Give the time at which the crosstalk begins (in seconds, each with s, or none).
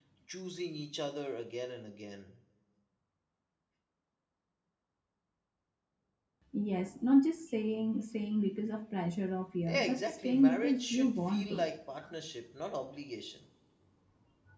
9.7 s